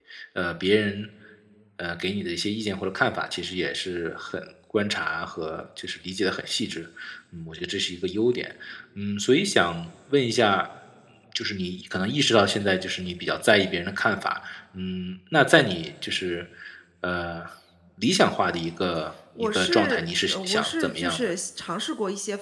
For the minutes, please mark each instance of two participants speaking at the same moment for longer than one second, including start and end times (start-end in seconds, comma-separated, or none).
19.4-21.3